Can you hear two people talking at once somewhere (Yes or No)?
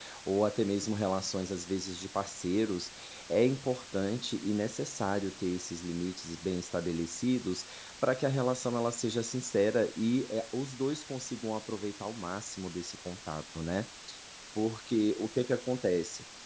No